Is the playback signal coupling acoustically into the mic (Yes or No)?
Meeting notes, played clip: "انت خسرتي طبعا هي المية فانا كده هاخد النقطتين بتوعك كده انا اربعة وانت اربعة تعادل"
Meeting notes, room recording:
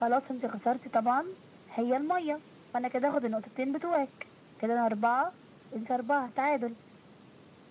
Yes